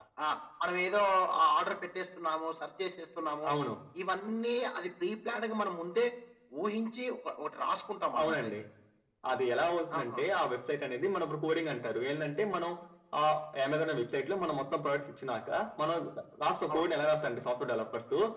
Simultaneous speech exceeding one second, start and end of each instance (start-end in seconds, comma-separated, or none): none